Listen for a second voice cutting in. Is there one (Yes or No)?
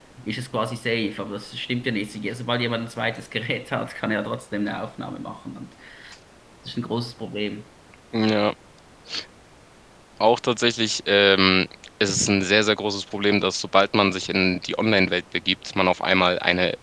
No